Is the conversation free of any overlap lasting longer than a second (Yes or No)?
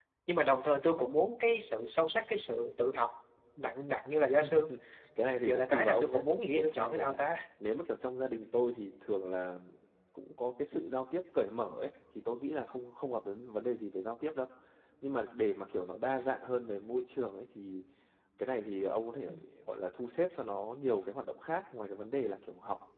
No